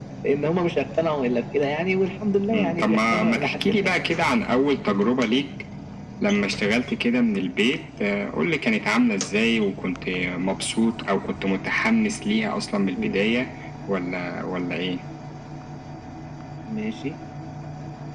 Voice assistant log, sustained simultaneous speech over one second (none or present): present